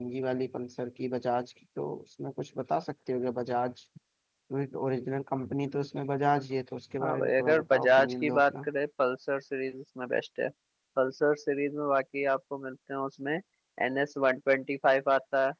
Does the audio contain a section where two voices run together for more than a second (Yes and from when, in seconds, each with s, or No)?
Yes, from 7.0 s